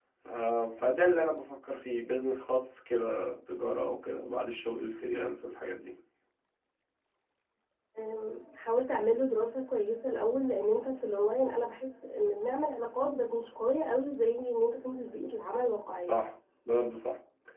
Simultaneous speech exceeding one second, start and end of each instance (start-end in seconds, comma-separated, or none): none